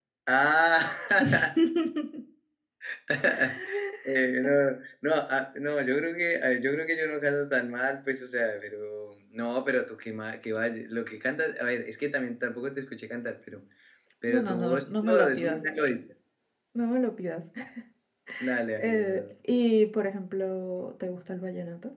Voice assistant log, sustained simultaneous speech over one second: present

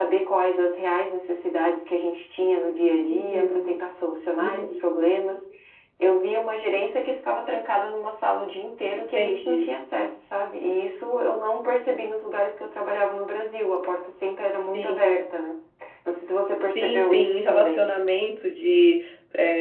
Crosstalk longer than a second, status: present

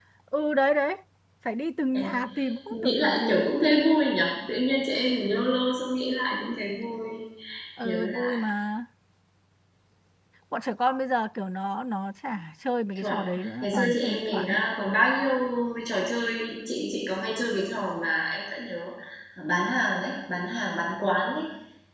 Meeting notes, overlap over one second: present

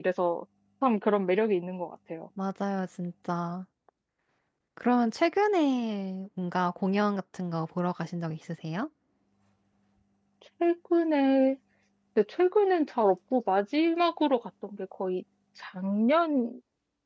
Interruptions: none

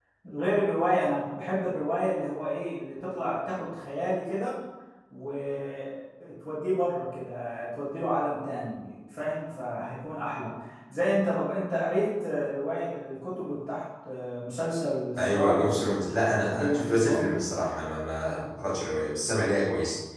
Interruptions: present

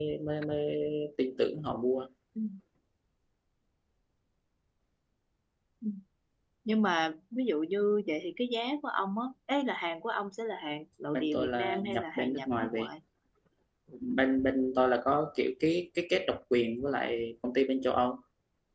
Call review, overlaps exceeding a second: present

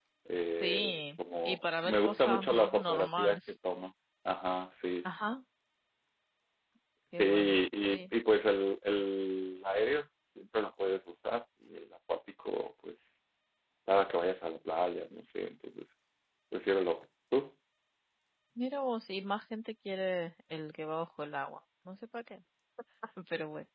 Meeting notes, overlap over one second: present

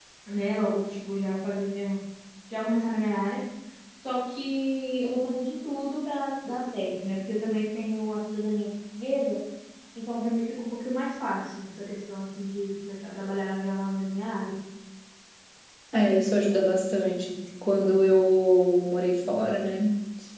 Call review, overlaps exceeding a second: none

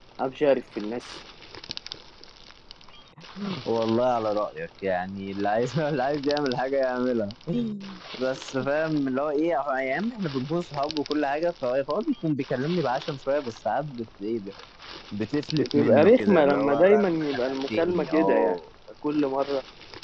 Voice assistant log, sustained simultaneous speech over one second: present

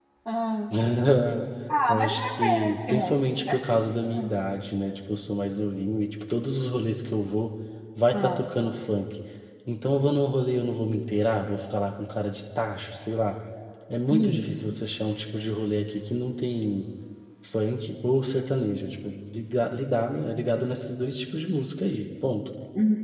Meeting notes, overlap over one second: present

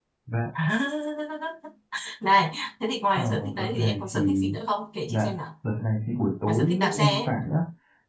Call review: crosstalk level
present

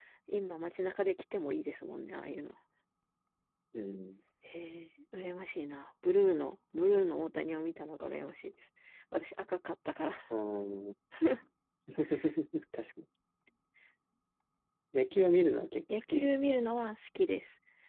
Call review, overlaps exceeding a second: none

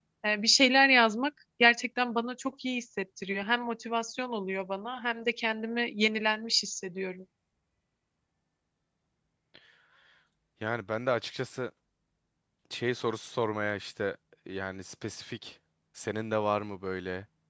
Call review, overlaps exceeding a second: none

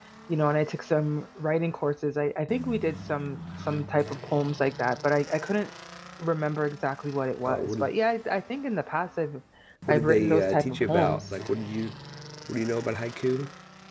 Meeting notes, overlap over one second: present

